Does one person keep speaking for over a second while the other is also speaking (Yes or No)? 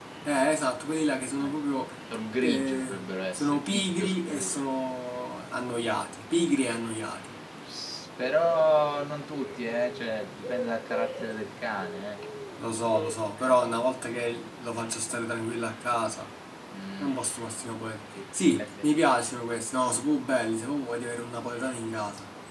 Yes